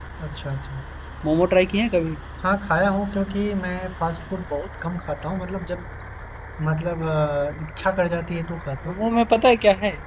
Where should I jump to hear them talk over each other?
none

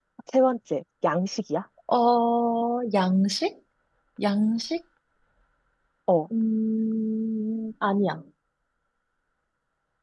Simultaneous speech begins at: none

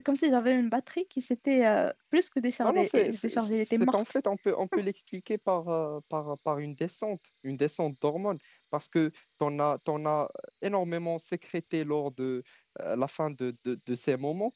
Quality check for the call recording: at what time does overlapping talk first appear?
2.6 s

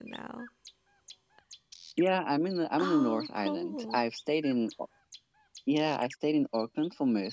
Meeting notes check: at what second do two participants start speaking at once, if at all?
2.8 s

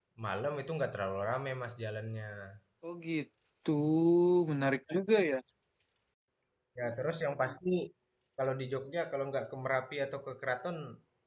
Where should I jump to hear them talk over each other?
none

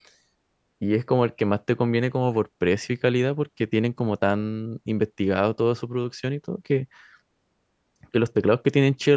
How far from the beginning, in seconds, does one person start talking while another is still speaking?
none

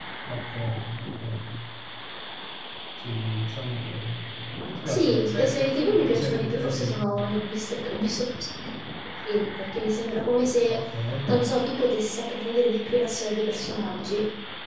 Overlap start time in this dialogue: 4.8 s

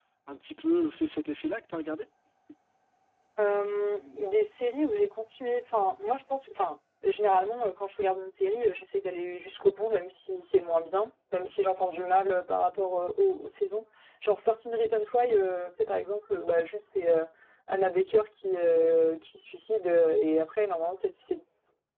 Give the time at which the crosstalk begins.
none

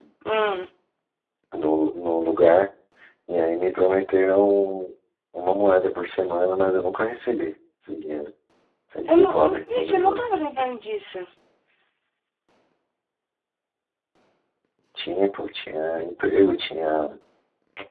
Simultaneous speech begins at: 9.1 s

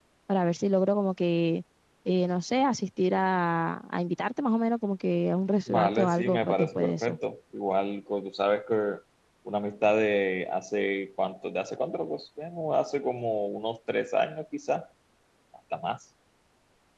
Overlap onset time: 5.7 s

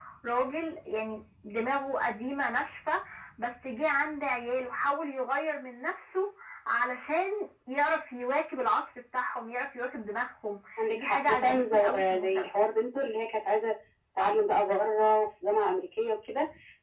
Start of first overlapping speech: 11.0 s

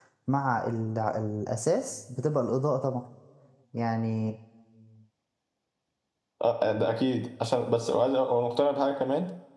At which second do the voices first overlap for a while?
none

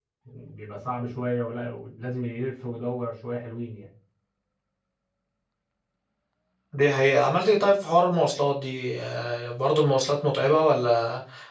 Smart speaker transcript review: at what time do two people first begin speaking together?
none

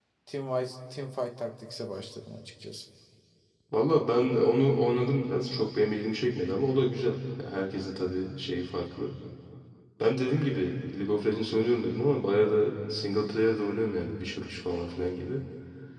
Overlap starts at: none

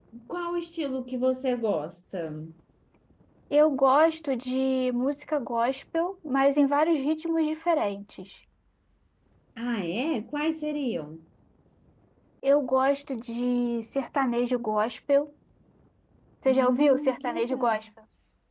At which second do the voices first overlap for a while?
16.5 s

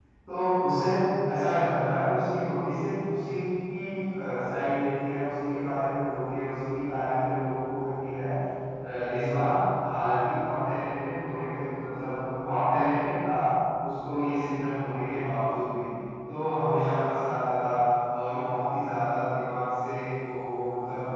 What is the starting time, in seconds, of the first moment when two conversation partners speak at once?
none

